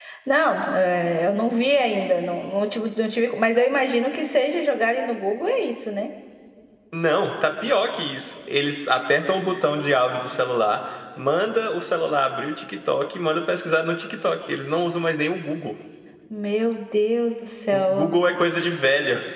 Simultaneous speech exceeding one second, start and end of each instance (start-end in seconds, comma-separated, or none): none